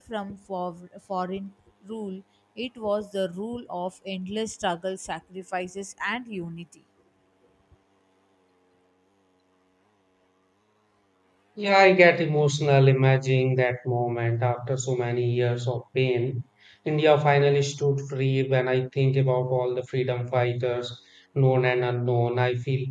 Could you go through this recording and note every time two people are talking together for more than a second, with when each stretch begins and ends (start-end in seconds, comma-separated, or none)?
none